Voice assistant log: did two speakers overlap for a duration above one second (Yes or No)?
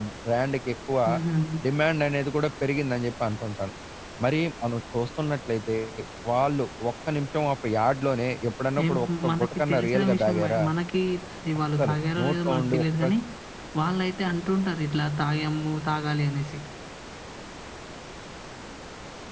Yes